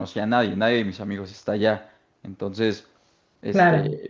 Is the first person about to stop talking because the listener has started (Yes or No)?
No